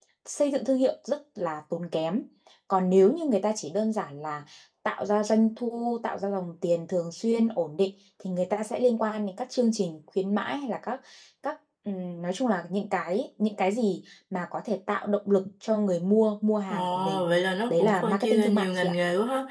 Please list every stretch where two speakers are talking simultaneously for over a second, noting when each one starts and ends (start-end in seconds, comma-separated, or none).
17.7-18.9